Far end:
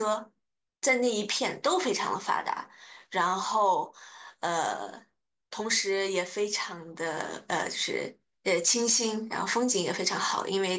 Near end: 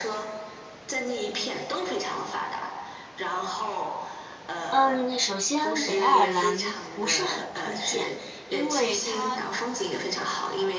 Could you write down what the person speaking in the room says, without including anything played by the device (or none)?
嗯，首先北爱尔兰不是很推荐，因为它，